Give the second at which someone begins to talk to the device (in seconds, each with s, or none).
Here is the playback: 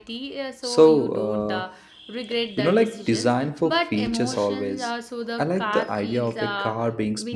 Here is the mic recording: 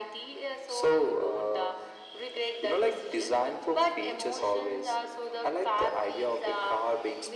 none